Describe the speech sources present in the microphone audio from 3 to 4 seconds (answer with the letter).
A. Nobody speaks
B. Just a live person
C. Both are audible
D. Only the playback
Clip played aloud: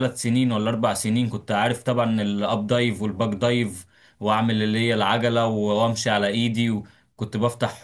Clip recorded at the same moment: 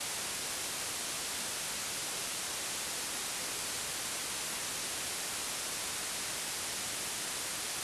A